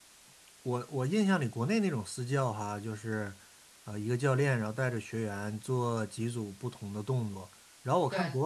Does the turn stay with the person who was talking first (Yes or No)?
Yes